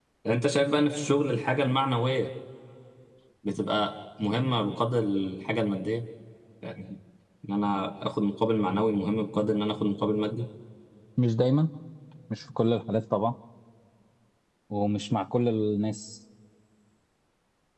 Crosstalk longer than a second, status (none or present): none